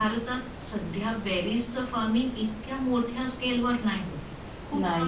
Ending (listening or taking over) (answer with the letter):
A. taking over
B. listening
B